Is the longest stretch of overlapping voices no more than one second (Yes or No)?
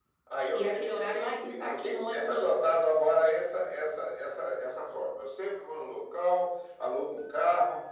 No